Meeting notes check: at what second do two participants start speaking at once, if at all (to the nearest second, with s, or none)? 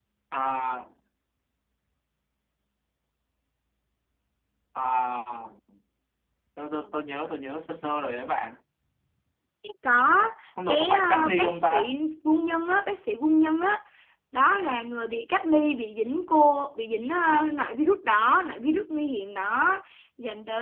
11 s